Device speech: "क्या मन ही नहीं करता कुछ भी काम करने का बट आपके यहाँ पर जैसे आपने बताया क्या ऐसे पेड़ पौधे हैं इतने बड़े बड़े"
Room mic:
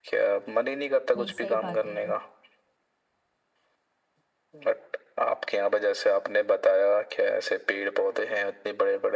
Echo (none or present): present